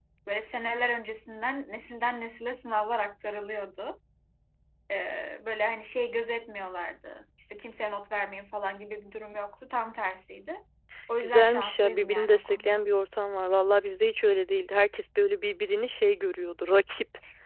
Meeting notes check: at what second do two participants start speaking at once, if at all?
11 s

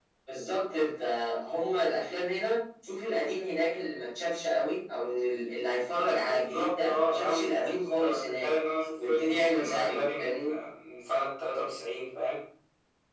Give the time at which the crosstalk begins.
6 s

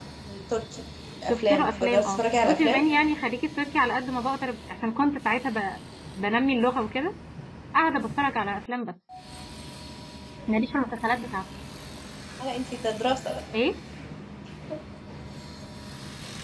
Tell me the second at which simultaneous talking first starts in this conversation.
1 s

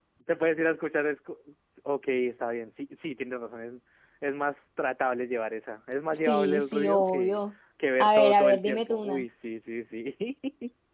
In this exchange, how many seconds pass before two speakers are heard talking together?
6 s

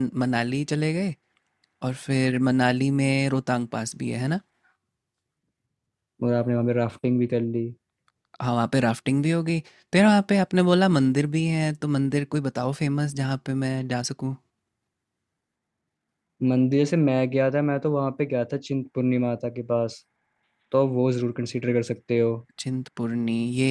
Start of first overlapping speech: none

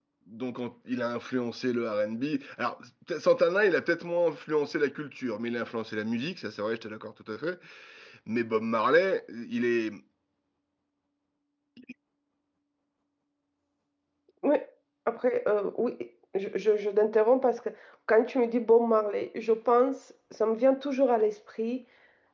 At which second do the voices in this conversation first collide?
none

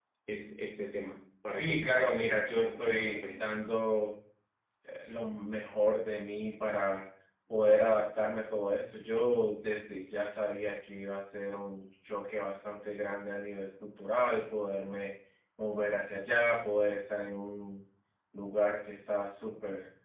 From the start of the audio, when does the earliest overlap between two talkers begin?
1 s

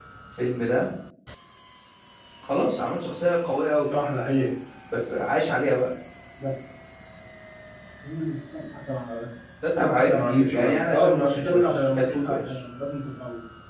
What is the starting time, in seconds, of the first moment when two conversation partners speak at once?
10 s

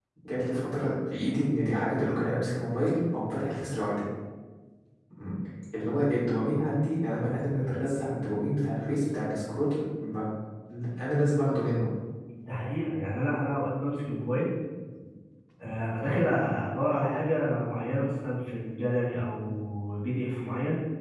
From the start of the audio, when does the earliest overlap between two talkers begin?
none

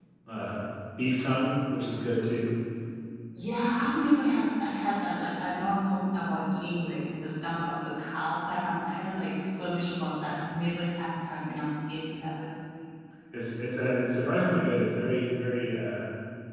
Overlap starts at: none

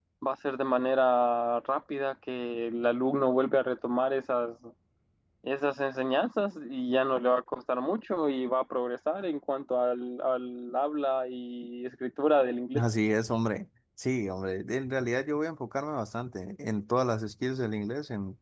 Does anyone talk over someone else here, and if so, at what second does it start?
none

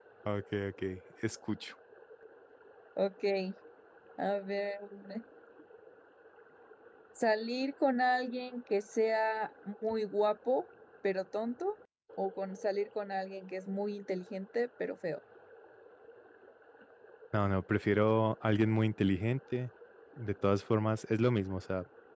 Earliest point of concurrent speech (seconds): none

